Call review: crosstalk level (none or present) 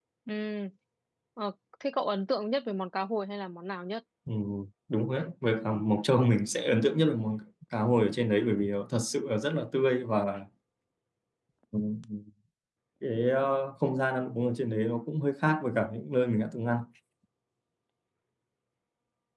none